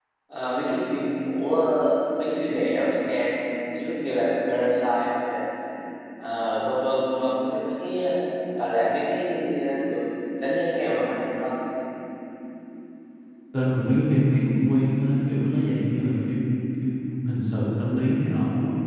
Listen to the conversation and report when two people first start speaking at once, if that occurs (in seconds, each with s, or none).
none